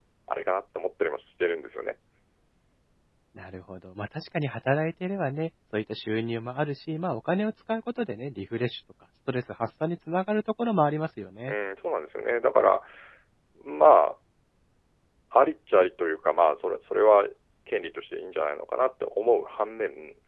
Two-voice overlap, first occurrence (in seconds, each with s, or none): none